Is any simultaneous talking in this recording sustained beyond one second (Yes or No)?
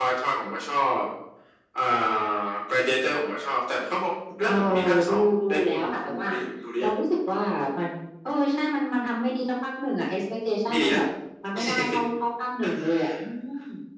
Yes